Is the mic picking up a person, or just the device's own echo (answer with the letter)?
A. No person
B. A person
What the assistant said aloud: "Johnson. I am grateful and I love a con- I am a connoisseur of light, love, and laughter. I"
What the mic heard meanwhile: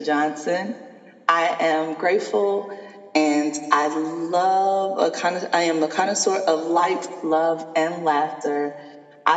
A